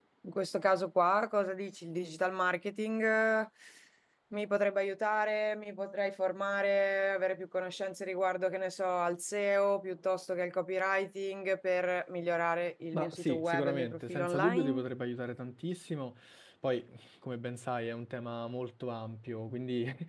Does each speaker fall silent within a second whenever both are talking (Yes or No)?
No